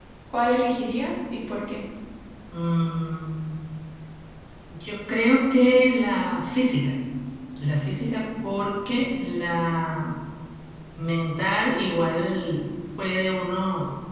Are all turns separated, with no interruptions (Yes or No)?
Yes